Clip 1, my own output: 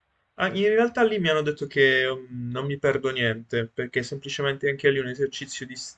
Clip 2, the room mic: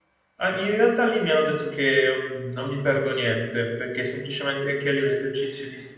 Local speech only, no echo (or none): none